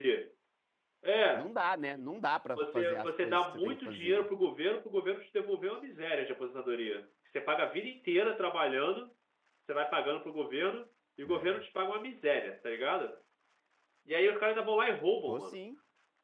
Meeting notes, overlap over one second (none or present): present